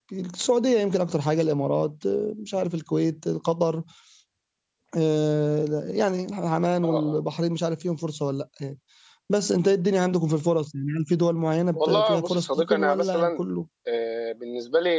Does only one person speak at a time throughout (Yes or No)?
No